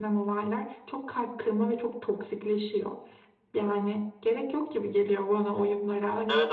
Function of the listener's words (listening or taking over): taking over